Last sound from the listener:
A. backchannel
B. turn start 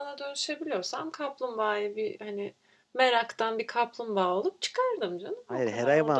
B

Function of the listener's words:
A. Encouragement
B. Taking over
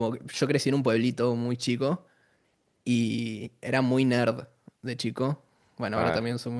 B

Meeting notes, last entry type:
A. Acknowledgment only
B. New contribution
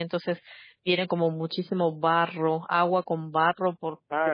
B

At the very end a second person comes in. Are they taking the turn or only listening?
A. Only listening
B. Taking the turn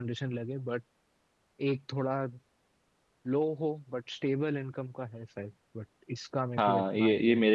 B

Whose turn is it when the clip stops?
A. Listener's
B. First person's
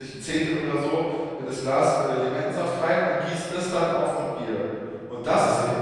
B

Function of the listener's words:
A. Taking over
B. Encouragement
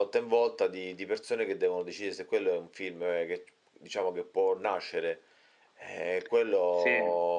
B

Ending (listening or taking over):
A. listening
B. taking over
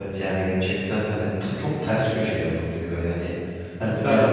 A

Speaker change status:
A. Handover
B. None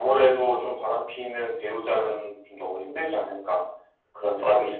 A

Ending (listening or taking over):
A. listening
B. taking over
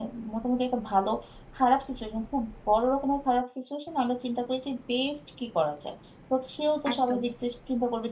A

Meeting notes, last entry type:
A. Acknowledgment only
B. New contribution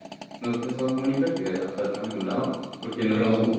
A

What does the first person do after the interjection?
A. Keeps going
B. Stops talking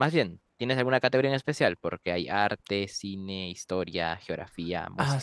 B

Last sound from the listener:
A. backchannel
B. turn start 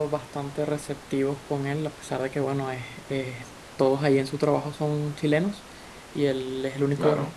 A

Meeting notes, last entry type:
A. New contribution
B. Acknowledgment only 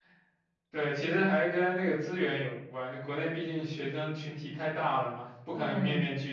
B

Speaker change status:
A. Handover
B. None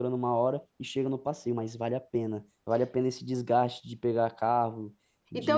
A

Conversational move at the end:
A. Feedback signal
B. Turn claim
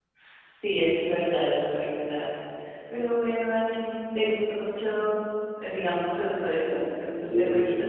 B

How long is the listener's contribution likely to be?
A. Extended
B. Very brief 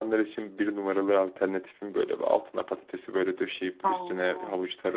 B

